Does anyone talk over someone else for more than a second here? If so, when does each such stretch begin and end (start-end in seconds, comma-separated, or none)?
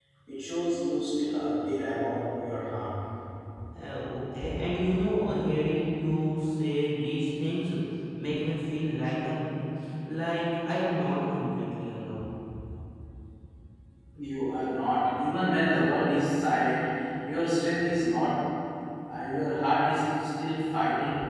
none